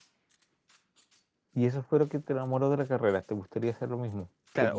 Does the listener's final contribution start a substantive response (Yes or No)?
Yes